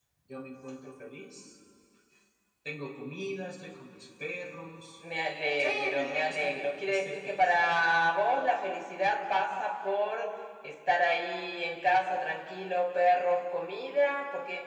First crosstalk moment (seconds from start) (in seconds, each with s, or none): 5.6 s